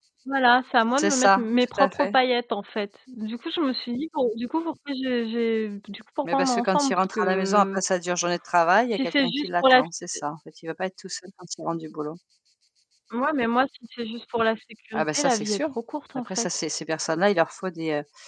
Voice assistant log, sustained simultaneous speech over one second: present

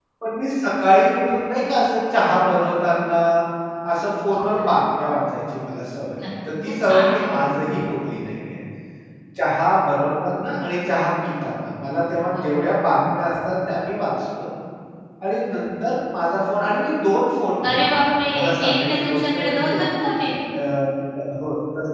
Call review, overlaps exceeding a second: present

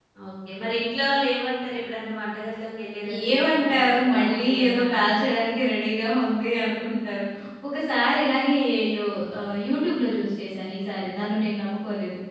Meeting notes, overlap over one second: present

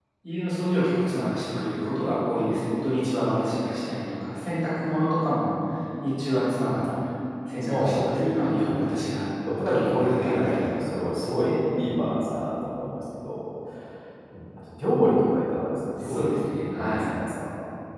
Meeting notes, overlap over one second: present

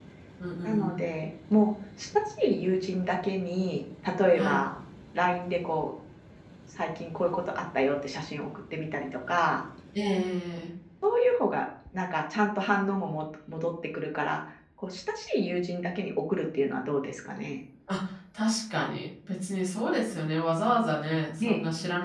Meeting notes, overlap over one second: none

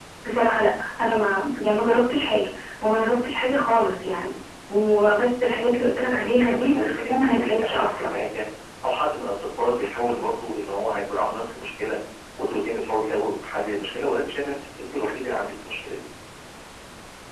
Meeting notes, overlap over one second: present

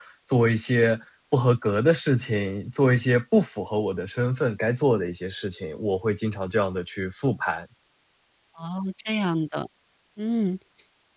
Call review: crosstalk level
none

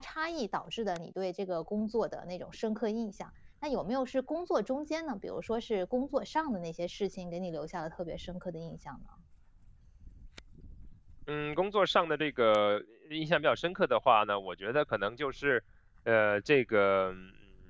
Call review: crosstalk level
none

